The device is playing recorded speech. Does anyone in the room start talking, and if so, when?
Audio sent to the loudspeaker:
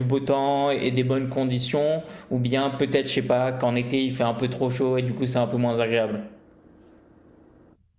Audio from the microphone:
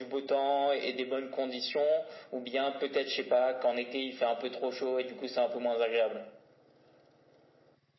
none

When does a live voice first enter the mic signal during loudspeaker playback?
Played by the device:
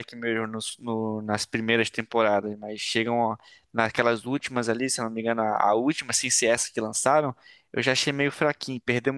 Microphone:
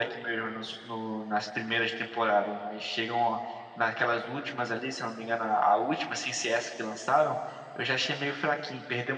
none

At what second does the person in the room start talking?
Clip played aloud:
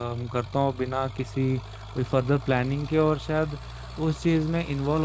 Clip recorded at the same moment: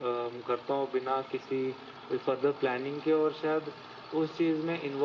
none

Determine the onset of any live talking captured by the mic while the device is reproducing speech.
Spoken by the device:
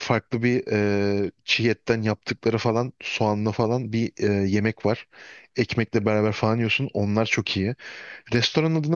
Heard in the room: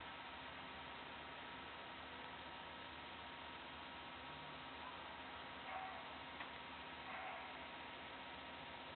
none

